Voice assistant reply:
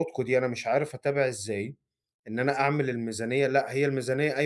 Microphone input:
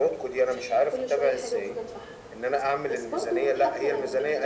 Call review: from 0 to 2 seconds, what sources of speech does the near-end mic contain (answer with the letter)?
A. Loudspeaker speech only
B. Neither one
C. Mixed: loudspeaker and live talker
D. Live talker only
C